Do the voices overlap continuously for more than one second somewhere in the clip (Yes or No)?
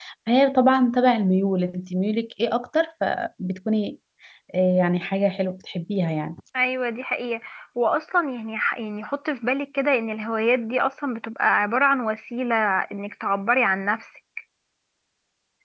No